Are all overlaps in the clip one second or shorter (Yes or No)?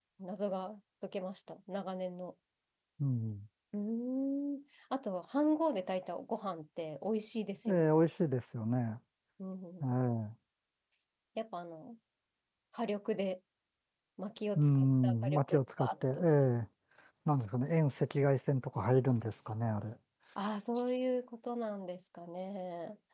No